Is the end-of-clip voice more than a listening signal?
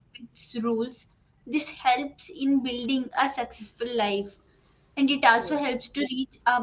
No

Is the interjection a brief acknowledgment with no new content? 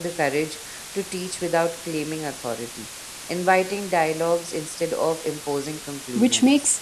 No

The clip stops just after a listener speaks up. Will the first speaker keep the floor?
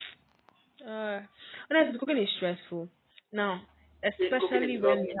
No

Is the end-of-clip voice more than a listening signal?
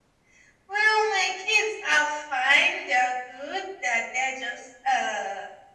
No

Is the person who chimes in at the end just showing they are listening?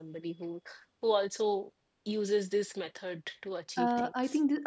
No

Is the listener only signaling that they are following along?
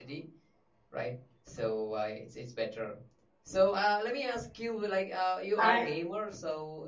Yes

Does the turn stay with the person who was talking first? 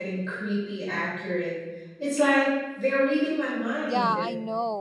No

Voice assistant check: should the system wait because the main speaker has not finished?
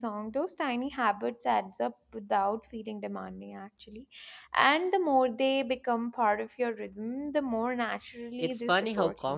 No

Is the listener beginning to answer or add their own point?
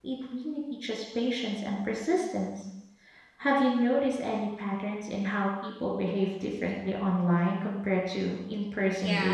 Yes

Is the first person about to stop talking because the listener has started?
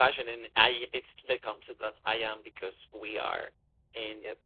No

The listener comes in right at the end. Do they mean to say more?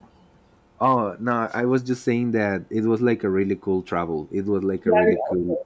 Yes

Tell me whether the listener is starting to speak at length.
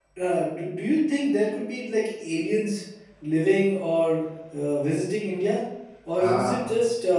No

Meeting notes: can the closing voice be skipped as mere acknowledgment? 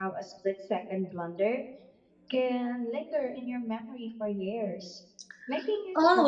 No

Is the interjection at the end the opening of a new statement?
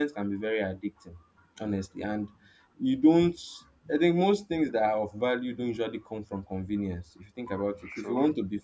No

